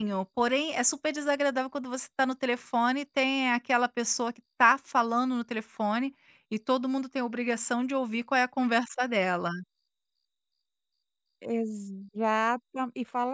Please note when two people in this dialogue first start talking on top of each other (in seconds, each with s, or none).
none